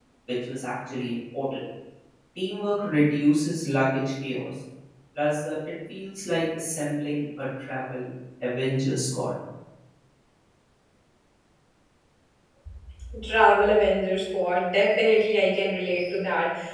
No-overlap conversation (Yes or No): Yes